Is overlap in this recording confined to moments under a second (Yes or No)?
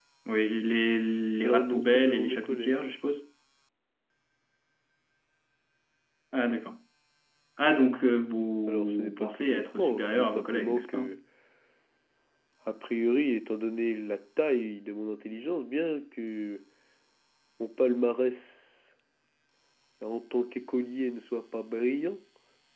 No